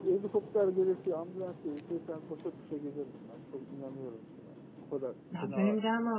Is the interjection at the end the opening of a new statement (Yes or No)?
Yes